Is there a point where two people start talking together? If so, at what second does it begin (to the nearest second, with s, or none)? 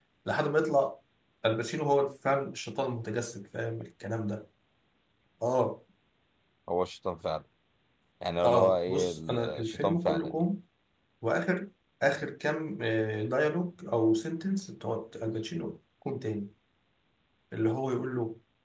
8 s